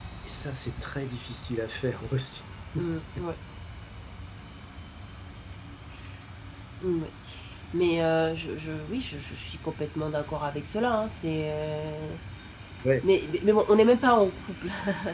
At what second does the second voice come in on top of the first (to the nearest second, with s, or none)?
none